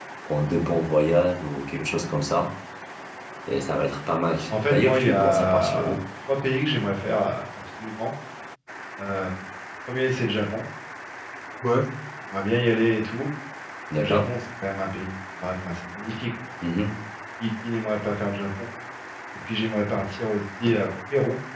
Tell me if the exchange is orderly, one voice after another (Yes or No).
No